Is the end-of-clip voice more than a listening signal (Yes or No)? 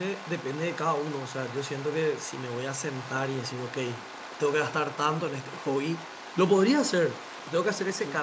No